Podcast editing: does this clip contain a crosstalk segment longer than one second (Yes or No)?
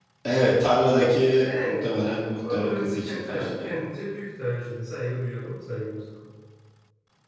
Yes